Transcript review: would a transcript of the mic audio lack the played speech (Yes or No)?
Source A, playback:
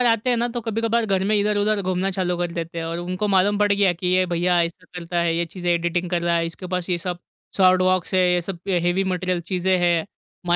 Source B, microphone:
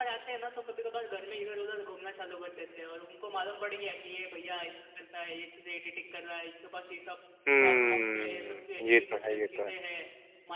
No